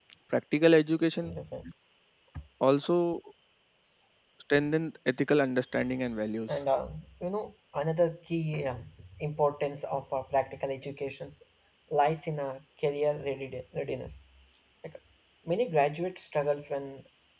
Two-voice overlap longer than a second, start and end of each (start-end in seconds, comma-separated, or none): none